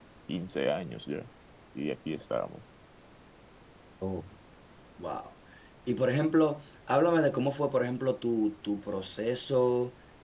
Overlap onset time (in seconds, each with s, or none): none